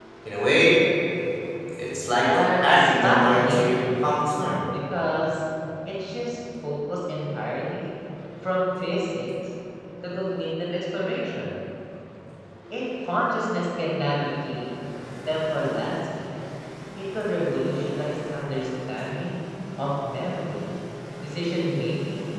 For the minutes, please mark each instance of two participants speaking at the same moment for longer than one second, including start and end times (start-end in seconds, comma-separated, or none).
2.2-4.0